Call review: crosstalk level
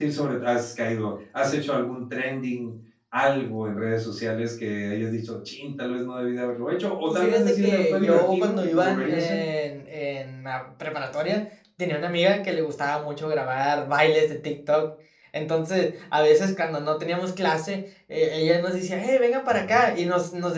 present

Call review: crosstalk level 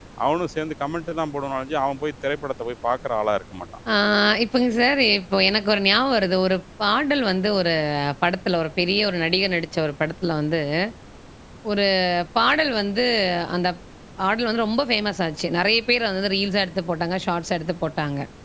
none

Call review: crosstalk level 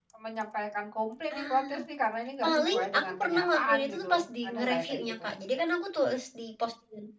present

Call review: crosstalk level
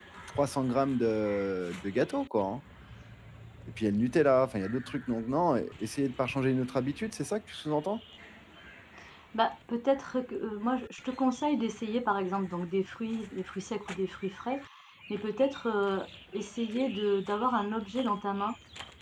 none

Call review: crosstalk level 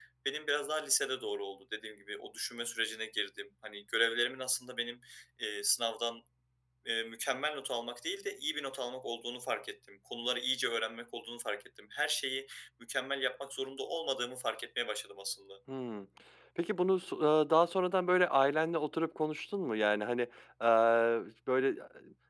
none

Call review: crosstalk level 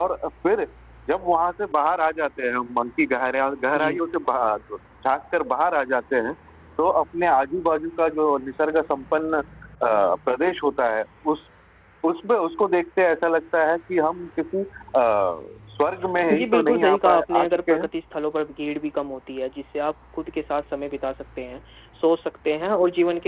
present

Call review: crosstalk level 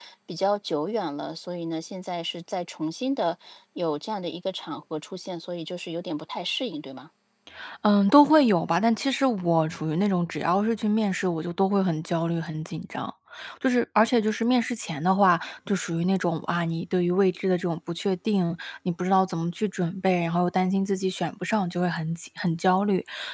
none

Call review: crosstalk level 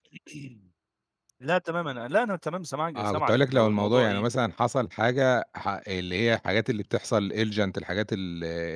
present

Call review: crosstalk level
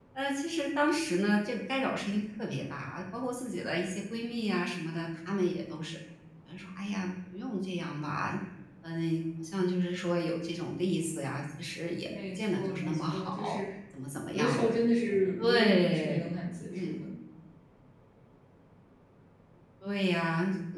present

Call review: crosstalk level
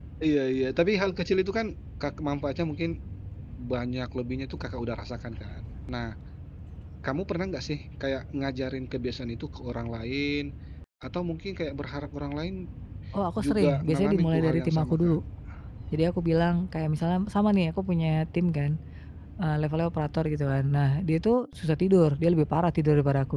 present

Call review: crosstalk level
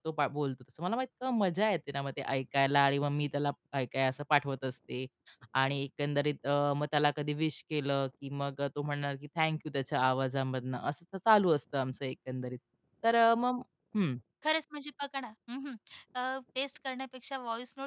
none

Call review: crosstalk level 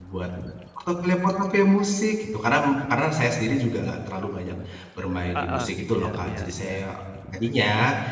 present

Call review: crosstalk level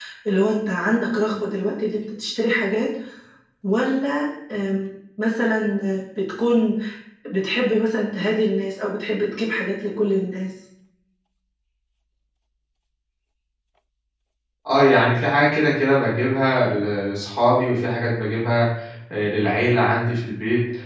none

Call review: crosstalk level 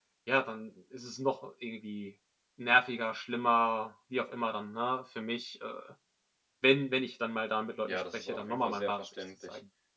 present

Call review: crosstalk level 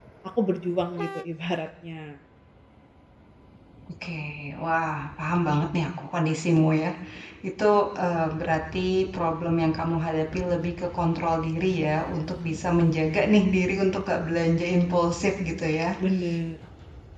none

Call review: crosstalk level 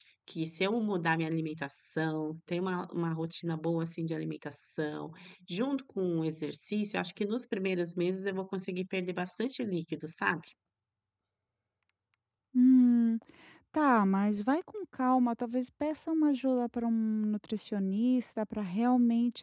none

